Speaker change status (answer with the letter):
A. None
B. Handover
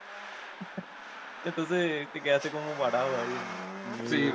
B